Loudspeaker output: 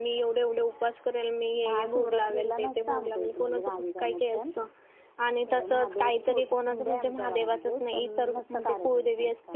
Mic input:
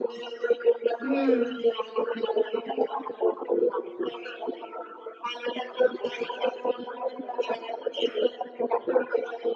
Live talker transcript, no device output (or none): हं.